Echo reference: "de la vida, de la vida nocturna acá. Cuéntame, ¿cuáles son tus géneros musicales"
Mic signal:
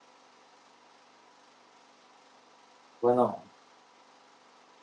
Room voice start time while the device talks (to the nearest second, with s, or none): 3 s